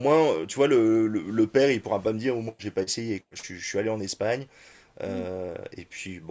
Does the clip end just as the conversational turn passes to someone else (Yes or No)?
No